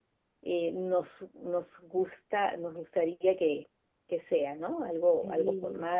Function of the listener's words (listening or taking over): taking over